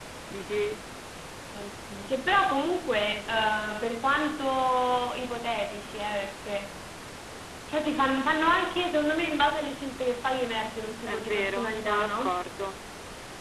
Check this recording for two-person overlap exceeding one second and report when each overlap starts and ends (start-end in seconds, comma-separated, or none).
11.1-12.4